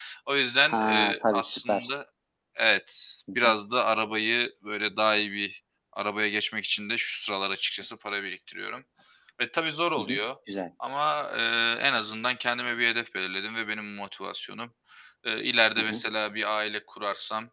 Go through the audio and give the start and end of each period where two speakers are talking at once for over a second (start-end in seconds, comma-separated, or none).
0.7-1.9